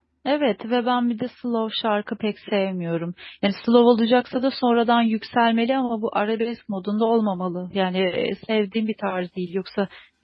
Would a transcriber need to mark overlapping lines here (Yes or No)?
No